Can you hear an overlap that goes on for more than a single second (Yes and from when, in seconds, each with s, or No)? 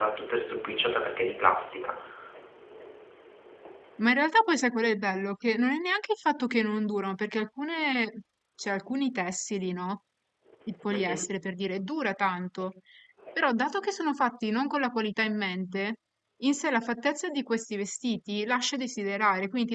No